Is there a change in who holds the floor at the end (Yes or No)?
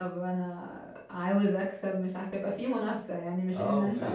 Yes